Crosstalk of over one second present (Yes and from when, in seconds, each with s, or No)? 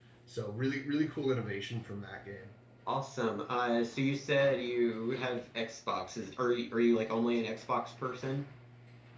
No